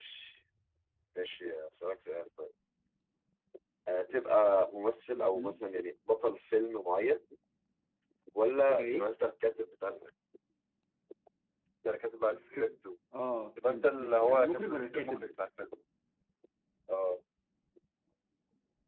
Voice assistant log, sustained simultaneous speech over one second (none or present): present